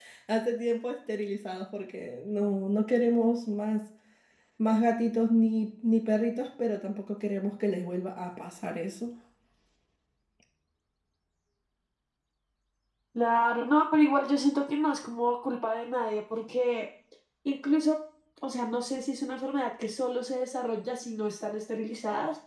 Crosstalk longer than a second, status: none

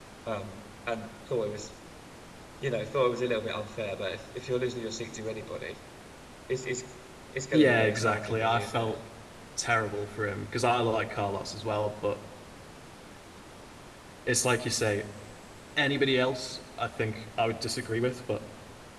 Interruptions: present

